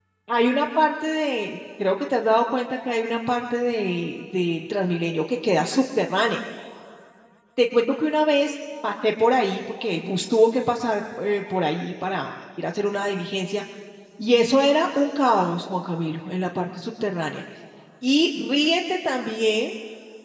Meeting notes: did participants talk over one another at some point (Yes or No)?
No